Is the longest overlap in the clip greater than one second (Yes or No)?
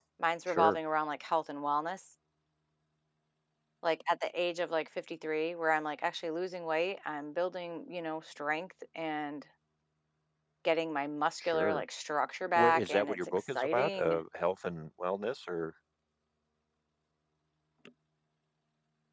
Yes